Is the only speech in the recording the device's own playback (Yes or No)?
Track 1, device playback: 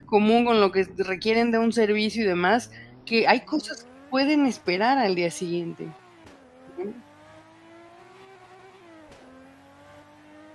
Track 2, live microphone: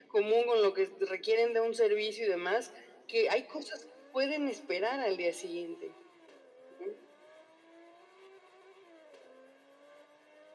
Yes